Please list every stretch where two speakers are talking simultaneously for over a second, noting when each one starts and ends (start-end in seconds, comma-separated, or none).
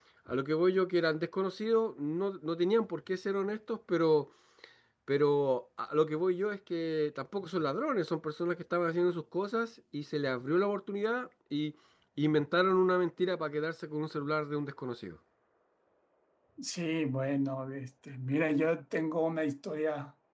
none